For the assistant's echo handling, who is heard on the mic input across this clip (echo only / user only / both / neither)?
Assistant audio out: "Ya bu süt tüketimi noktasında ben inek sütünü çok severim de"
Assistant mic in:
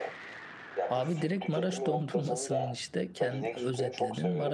both